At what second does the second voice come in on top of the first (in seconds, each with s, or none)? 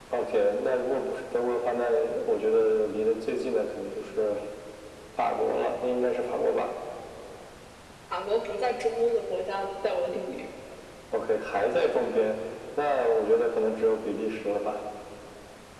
none